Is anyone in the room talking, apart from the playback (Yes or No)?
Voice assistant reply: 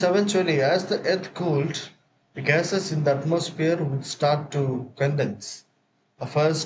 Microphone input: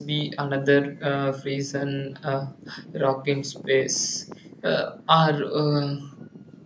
Yes